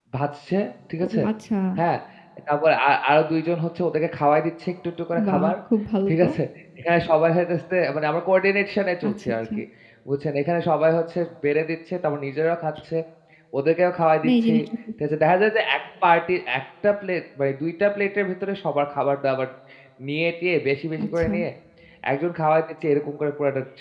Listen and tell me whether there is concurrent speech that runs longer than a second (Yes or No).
No